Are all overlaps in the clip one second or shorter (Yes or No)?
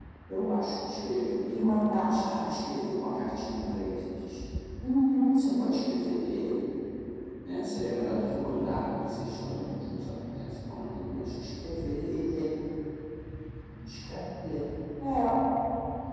Yes